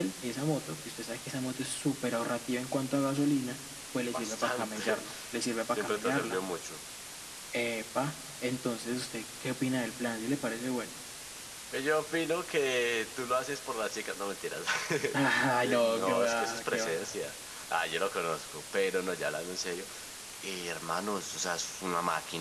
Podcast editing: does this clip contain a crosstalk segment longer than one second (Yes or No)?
Yes